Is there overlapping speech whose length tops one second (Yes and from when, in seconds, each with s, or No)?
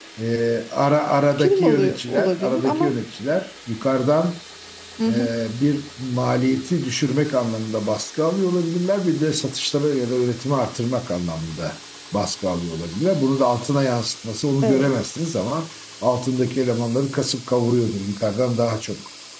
Yes, from 1.4 s